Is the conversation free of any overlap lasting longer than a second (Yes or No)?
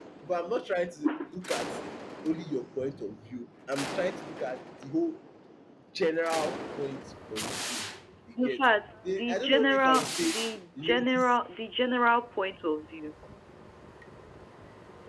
No